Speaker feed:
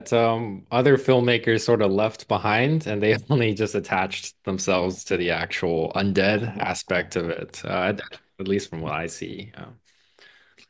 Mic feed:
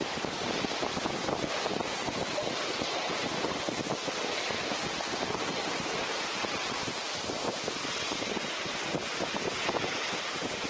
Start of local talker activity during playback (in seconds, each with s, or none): none